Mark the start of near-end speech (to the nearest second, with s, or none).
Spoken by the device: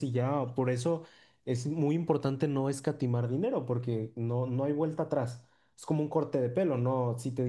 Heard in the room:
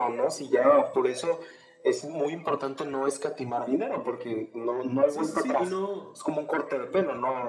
5 s